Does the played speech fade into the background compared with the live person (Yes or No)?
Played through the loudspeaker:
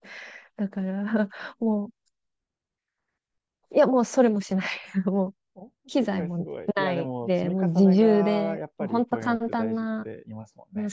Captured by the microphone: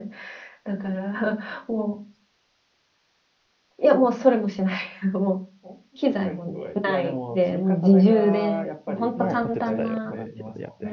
No